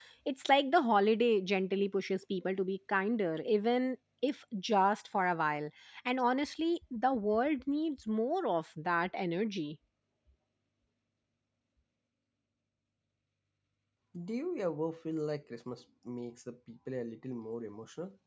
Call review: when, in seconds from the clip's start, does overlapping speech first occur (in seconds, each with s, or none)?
none